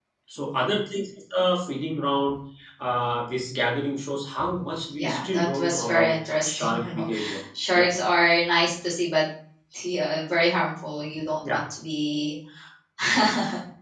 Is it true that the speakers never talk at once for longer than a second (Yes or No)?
No